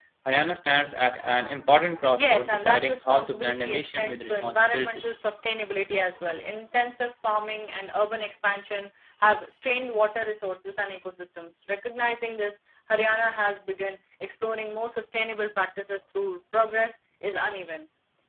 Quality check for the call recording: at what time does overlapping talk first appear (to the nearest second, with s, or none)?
2 s